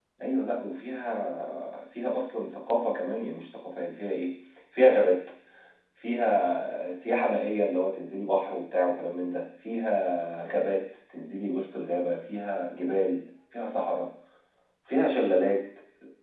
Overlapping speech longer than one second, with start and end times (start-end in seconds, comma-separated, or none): none